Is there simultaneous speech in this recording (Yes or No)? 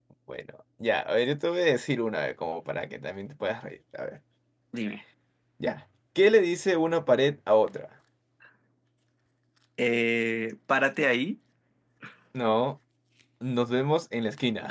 No